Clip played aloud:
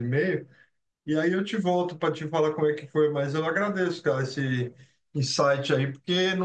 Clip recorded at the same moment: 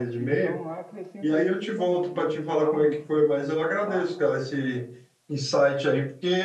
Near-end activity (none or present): present